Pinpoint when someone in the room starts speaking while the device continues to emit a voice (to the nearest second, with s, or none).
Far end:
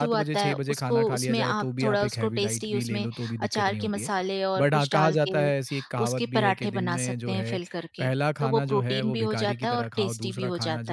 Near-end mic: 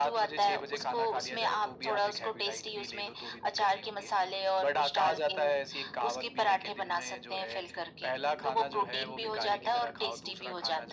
none